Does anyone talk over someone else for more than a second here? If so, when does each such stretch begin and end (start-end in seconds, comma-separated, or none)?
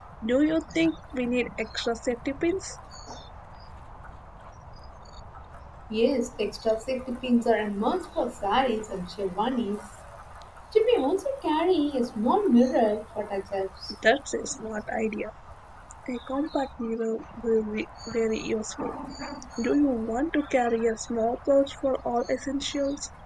none